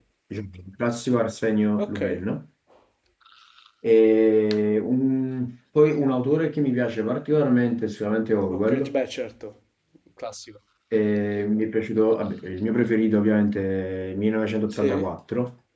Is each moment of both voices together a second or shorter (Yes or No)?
Yes